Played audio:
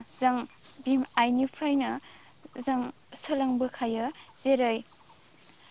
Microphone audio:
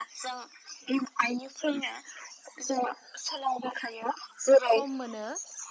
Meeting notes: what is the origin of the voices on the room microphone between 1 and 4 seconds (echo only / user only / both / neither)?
echo only